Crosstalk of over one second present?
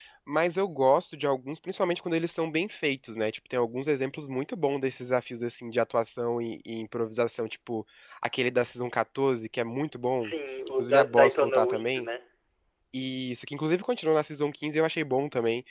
Yes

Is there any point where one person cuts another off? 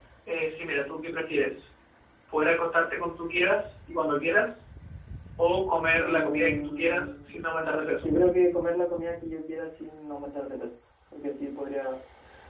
Yes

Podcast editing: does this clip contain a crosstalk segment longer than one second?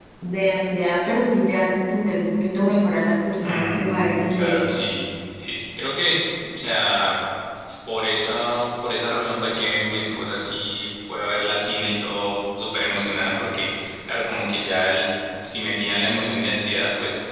Yes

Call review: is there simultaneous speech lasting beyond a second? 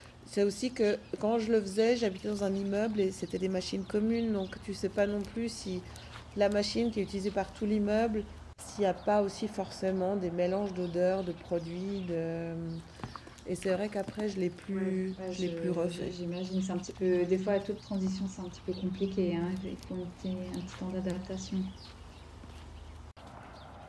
Yes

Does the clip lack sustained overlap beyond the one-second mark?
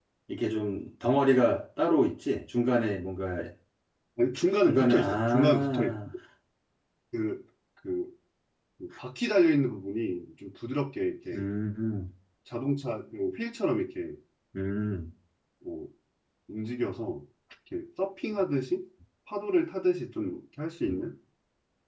No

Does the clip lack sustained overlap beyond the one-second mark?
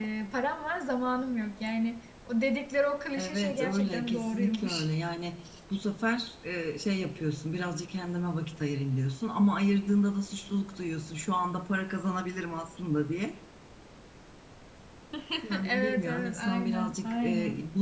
No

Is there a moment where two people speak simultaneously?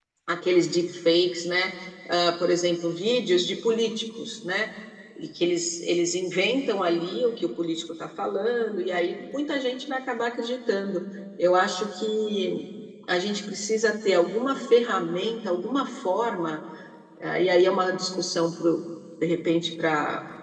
No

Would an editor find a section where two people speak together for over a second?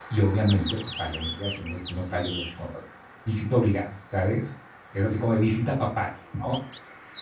No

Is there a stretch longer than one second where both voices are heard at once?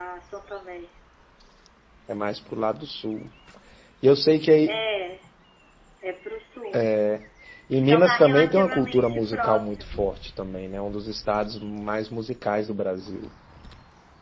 Yes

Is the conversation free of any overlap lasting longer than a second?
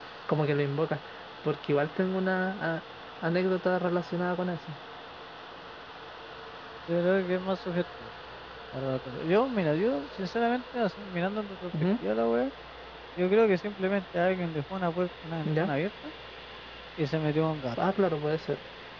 Yes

